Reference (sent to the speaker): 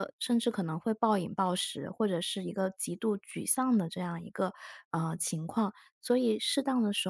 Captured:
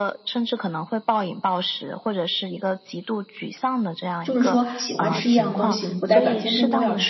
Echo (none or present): present